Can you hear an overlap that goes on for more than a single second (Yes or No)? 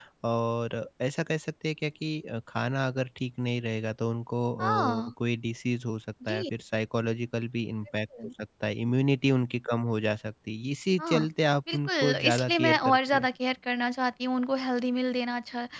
Yes